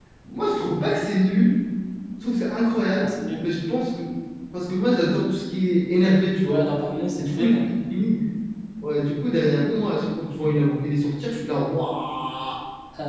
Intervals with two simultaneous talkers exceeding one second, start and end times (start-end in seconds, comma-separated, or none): none